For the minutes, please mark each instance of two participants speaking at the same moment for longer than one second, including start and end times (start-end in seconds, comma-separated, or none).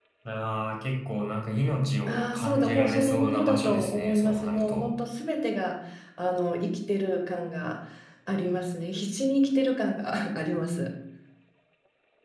2.1-4.9